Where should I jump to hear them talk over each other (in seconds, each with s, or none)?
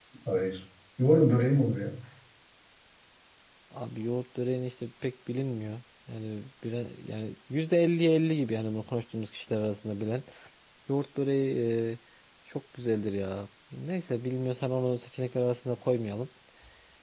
none